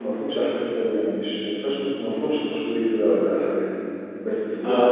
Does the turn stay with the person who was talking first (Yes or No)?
Yes